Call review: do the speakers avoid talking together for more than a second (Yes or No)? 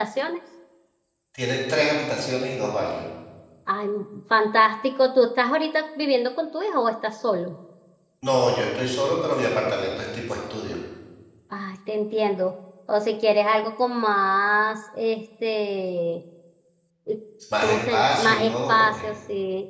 No